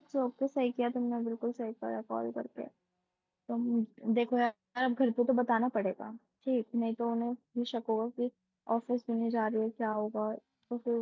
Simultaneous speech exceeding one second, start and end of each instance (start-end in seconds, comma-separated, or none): none